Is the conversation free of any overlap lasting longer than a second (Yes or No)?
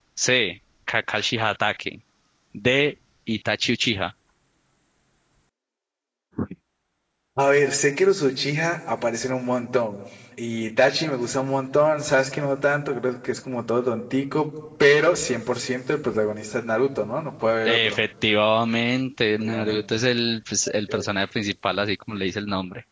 Yes